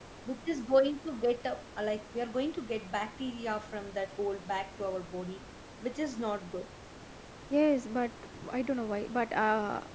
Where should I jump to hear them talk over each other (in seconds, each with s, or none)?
none